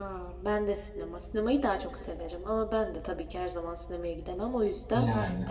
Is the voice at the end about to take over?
No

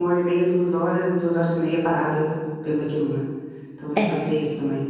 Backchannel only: Yes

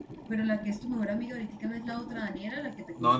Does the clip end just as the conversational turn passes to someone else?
Yes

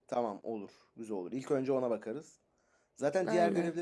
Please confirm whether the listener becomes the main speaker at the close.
No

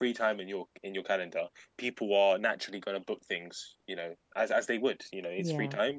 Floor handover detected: No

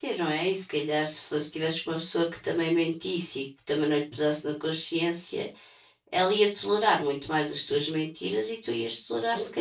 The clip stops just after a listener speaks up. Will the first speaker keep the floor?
No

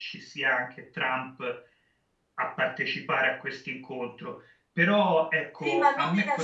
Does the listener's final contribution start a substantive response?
Yes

